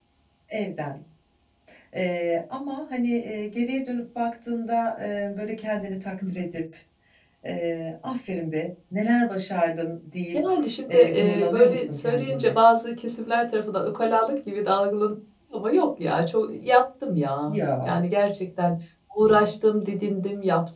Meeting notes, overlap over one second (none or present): present